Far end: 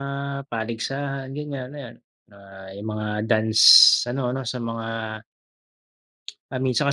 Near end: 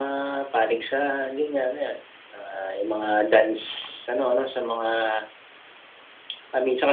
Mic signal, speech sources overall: echo only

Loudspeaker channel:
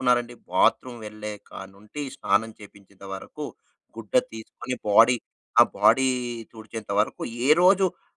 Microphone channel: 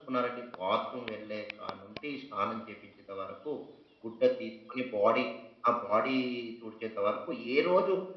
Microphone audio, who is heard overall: echo only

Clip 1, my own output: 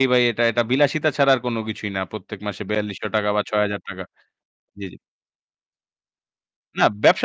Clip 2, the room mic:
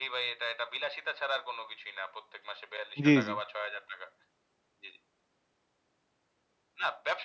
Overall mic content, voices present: both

